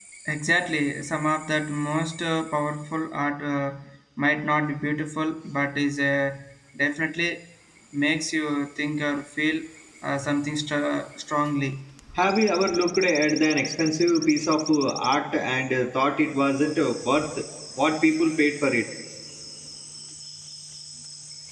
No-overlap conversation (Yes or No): Yes